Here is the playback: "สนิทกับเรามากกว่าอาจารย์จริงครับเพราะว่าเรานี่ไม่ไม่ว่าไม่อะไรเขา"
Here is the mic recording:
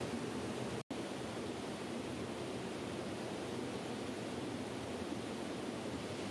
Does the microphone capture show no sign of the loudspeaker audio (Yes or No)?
Yes